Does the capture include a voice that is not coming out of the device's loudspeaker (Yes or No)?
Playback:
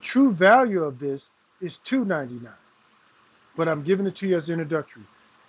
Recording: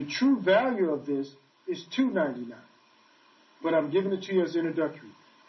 No